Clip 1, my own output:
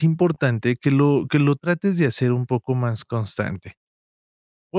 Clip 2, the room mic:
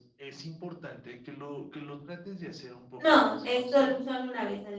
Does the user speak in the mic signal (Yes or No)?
Yes